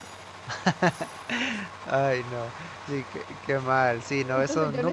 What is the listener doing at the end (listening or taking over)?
taking over